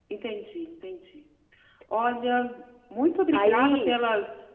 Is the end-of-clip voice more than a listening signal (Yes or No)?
No